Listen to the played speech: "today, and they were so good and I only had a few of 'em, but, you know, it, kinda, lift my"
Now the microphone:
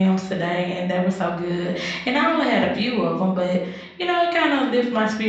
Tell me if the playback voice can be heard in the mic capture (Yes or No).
Yes